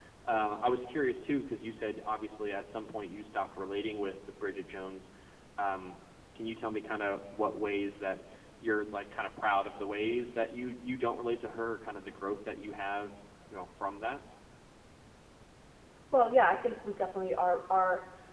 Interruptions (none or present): none